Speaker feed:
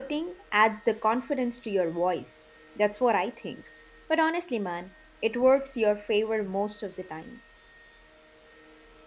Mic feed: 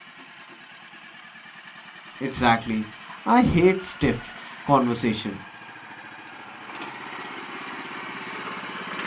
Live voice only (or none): Exactly. I hate stiff conversation.